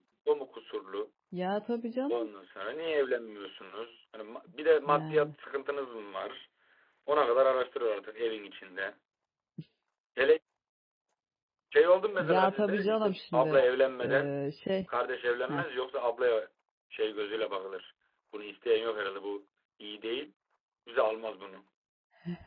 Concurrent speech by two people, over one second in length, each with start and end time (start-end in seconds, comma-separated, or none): 12.2-13.6